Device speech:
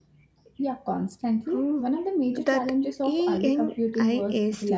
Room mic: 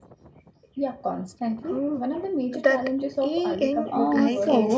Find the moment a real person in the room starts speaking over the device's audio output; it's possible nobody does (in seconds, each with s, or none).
3.9 s